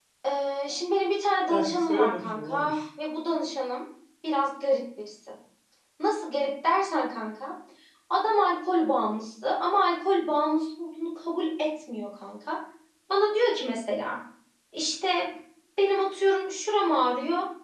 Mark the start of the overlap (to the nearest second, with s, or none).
1 s